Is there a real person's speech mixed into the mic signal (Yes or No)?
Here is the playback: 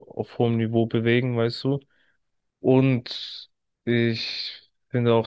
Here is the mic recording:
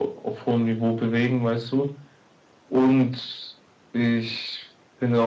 No